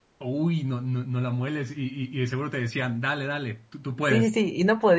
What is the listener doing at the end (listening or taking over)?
taking over